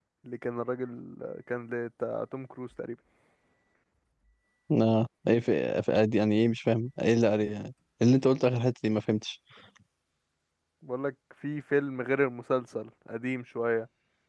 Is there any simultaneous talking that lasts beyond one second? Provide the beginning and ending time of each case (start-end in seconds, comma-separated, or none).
none